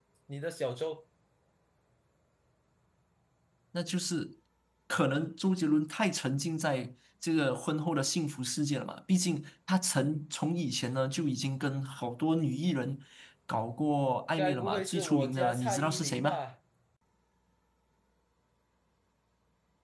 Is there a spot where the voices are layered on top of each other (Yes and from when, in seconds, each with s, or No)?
Yes, from 14.4 s